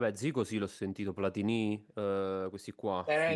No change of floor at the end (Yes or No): No